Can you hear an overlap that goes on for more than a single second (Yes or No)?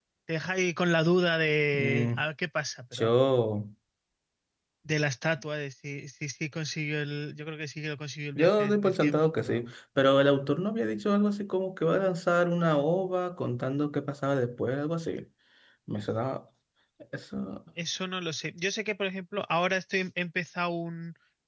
Yes